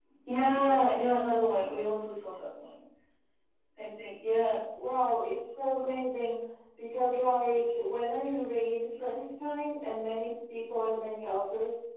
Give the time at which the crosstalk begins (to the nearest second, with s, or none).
none